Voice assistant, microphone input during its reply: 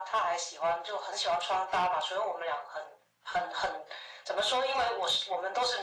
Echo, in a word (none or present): present